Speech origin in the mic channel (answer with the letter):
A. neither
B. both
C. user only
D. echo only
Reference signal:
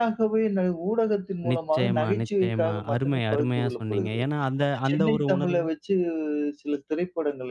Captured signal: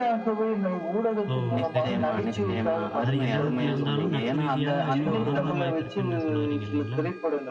B